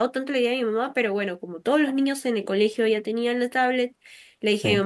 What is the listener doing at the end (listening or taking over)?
listening